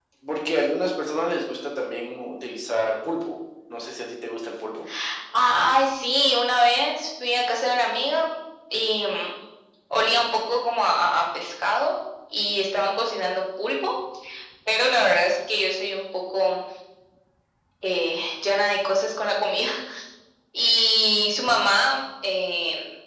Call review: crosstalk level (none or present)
none